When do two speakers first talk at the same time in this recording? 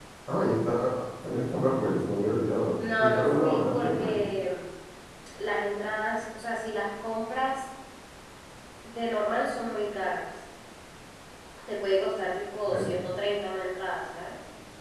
2.8 s

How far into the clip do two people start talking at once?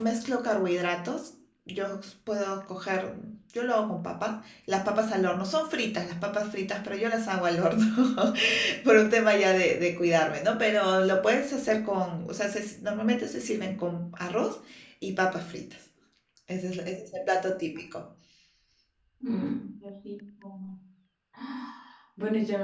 none

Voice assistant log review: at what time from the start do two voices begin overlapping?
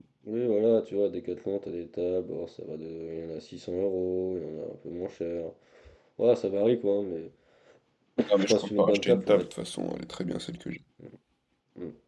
8.3 s

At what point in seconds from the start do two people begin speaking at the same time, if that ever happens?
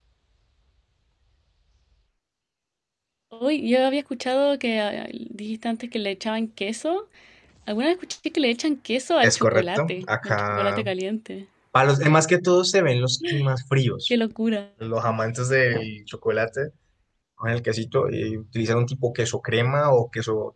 9.2 s

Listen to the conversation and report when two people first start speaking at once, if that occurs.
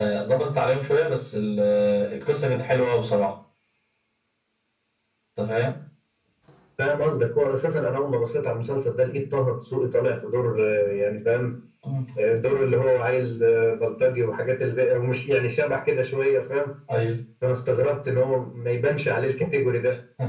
none

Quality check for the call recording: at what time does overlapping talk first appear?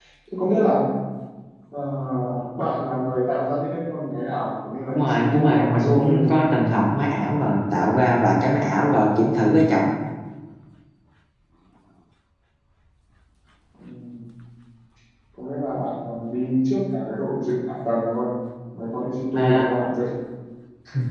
4.9 s

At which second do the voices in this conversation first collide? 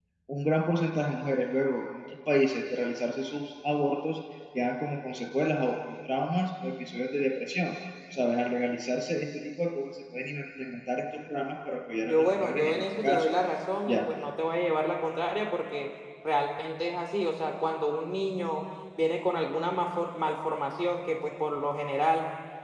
12.0 s

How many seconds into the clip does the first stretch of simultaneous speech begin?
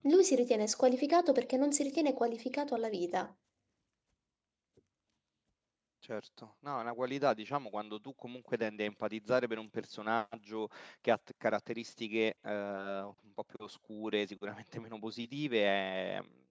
none

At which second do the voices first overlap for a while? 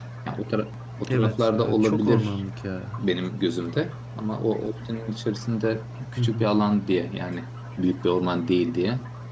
1.1 s

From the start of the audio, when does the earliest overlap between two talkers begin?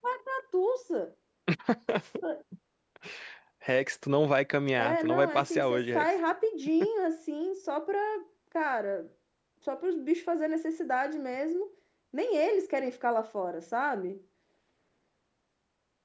4.8 s

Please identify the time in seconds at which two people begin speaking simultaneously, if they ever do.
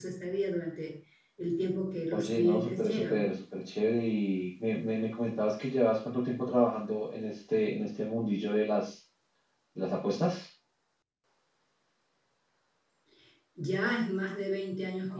2.1 s

